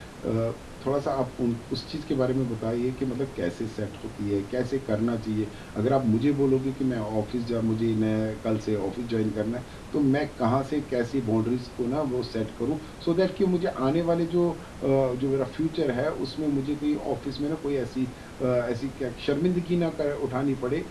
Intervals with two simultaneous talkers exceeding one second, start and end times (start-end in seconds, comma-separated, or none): none